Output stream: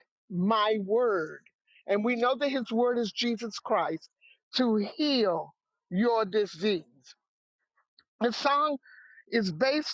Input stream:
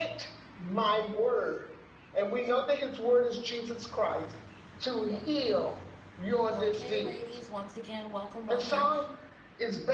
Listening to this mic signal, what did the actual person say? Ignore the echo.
Okay, ladies, once again, welcome, welcome.

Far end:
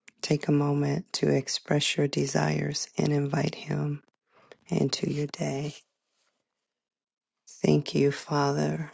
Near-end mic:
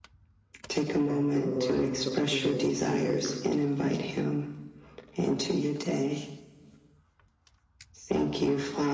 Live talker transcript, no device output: Pastor Lawana, so good, good

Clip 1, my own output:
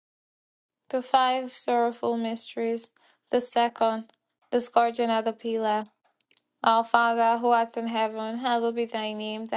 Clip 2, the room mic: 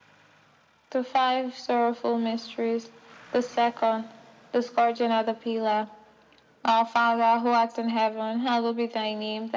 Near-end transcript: none

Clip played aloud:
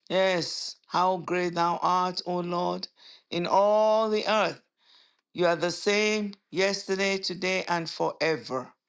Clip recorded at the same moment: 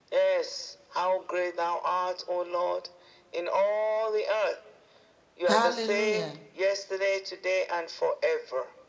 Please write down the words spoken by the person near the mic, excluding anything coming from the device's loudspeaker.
Hallelujah.

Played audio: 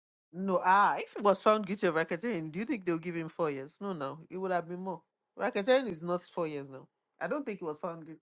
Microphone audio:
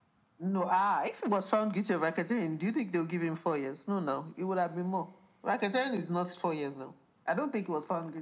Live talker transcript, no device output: none

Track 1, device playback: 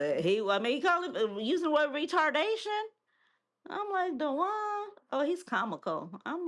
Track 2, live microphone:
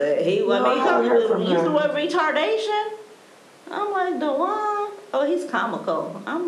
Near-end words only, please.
No, I haven't heard from her.

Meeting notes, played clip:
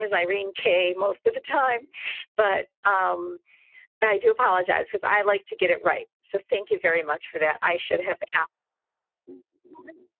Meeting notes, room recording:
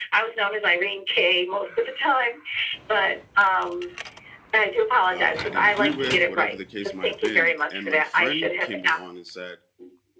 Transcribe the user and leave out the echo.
um, I didn't agree with, whatever the case might have been. And my friend came along and said

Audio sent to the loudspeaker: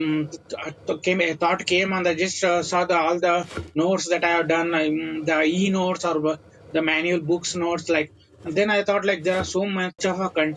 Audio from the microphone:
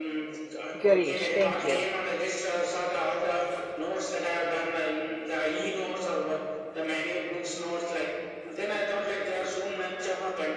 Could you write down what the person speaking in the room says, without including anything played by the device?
Girish. Thank you,

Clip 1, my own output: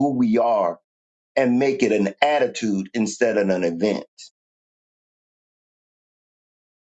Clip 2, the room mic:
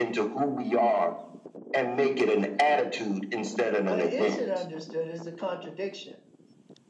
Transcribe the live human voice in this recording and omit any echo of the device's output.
but is it understood is the contradiction

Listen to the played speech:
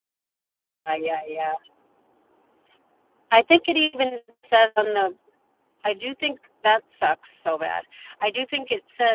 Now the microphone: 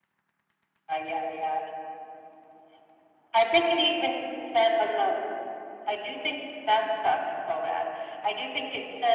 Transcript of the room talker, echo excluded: none

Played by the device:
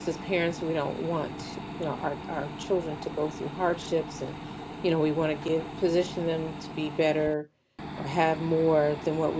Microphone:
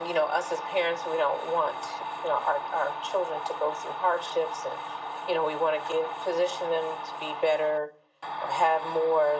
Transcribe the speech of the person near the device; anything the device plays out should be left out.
none

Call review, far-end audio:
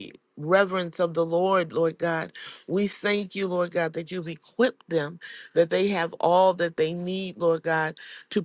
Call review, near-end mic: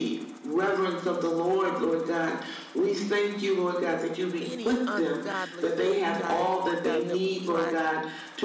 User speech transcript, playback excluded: any ungodly soul ties, Lord God, that will try

